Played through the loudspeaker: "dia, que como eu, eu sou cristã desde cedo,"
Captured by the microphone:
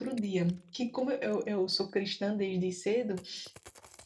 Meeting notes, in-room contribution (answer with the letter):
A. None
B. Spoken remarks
A